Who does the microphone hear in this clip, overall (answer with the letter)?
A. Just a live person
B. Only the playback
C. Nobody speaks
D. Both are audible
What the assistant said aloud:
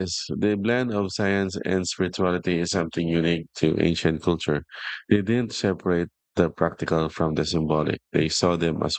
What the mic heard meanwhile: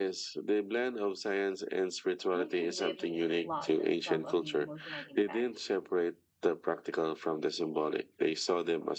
D